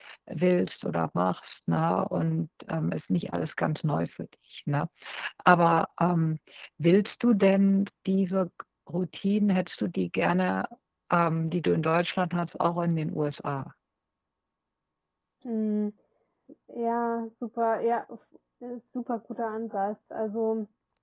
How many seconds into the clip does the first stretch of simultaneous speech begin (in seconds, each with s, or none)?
none